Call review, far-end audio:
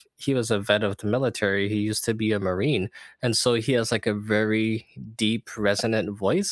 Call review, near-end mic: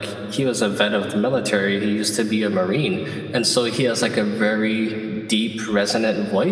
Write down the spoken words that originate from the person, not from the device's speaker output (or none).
none